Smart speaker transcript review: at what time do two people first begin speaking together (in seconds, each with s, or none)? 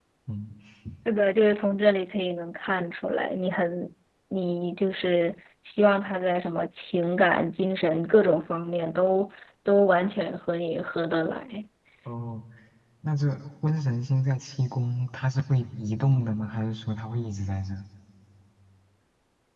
none